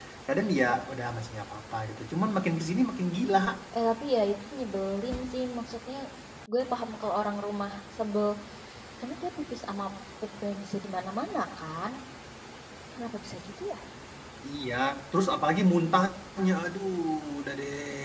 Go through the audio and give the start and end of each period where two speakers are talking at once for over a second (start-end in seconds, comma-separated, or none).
none